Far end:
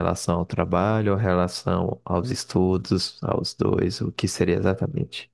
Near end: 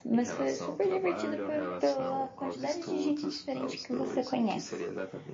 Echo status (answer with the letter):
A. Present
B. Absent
A